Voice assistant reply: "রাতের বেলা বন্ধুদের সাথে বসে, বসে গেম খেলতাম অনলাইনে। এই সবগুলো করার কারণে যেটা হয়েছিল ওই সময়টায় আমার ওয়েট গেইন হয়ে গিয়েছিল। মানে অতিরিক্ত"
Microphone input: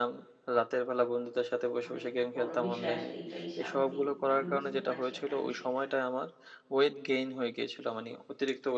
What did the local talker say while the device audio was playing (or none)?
অনেক বড় বিষয় আসলে এটাই স্বাভাবিক। আমি বুঝতে পারছি আপনার বিষয়টা।